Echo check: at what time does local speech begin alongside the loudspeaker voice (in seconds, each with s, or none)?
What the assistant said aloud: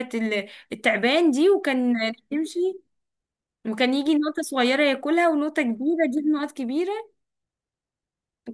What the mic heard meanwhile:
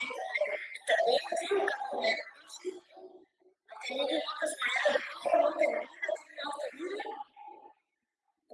none